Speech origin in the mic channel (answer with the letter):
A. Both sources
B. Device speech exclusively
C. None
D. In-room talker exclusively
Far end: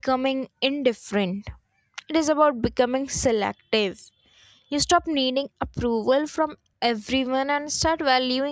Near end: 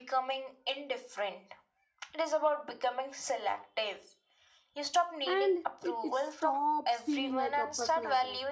A